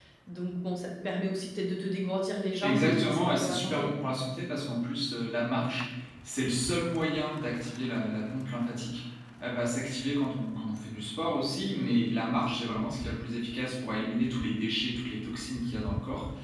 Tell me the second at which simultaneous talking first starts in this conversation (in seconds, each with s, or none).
2.6 s